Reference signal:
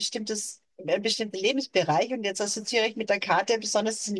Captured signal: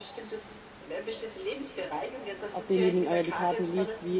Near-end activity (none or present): present